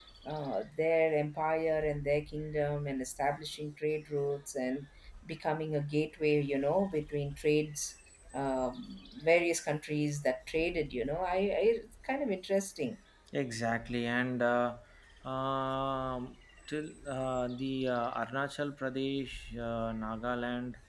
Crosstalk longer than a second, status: none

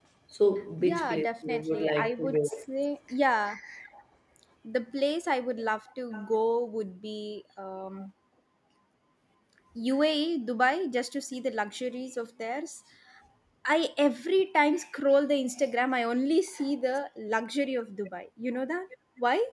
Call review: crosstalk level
present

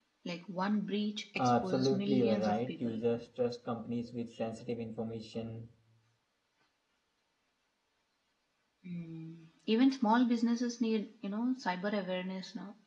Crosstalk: present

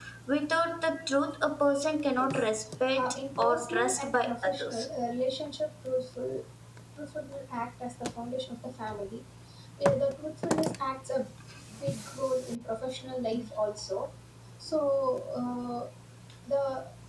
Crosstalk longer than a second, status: present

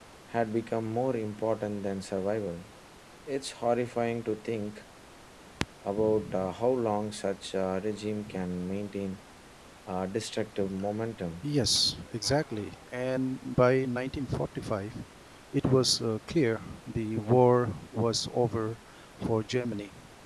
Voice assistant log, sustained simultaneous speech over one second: none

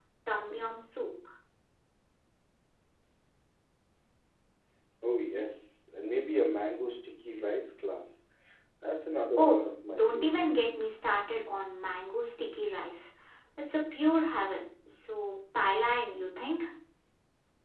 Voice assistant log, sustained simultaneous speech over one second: present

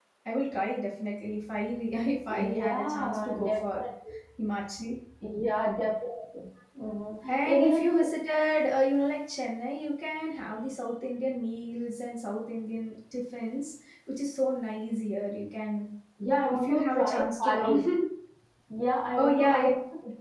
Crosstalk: present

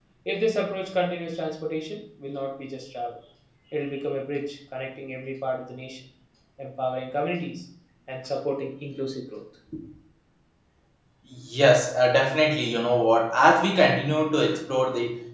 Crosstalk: none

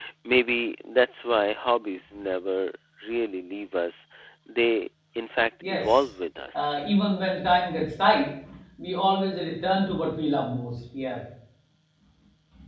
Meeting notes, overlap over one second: none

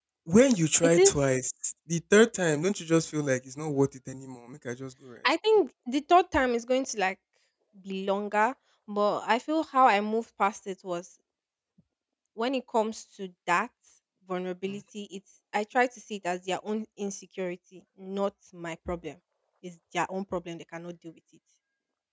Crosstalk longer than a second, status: none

